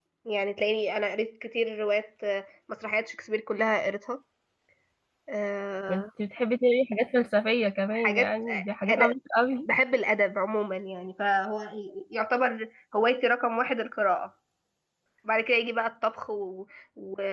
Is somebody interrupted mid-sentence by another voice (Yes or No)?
Yes